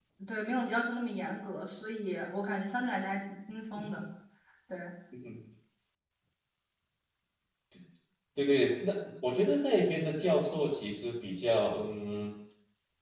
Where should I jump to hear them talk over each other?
none

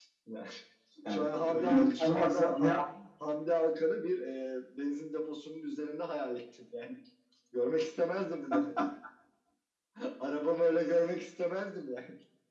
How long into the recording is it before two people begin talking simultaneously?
1.1 s

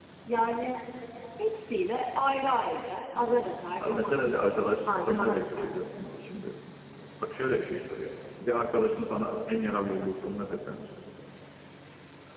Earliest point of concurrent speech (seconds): 3.8 s

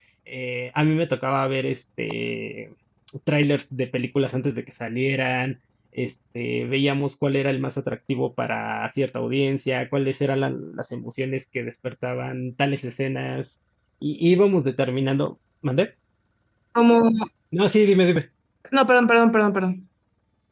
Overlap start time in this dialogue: none

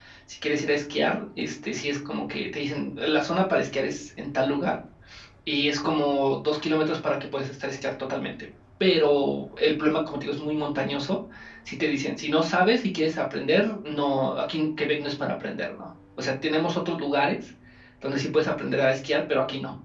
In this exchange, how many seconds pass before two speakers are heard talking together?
none

